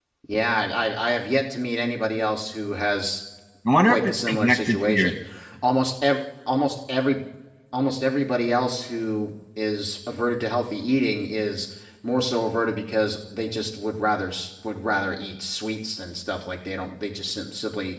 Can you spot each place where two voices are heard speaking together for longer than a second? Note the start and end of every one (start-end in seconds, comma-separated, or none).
3.8-5.1